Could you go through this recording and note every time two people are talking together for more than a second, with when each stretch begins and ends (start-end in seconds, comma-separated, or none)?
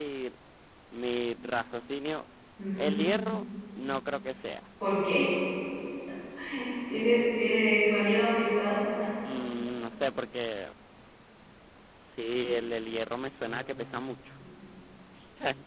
none